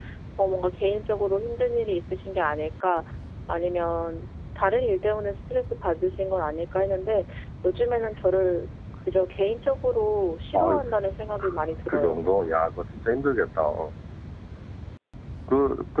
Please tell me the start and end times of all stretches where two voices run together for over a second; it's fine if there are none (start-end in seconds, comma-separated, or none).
none